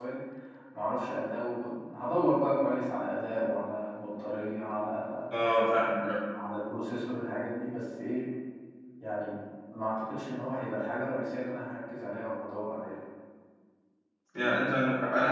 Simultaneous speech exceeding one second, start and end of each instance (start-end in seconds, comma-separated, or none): none